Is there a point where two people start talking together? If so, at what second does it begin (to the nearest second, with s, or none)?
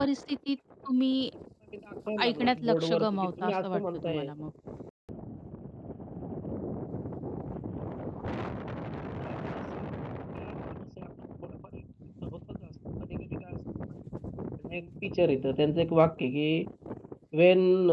2 s